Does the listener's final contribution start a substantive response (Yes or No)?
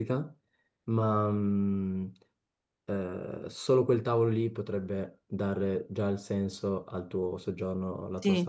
Yes